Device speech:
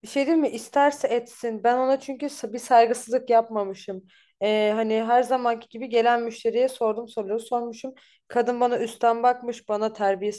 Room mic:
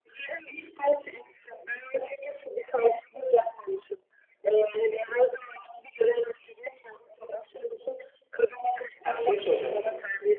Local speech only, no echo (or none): ha, şey soracağım sana.